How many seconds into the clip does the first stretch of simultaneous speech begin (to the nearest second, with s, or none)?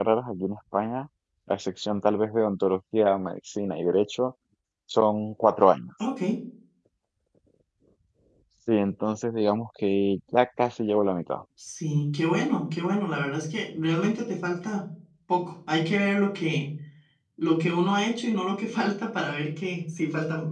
none